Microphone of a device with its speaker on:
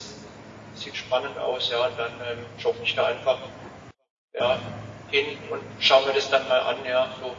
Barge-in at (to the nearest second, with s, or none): none